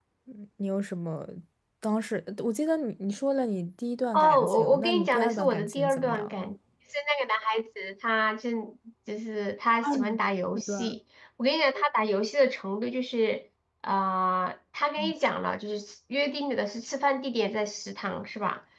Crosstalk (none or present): present